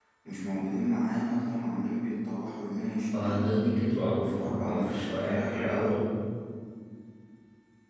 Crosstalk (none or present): present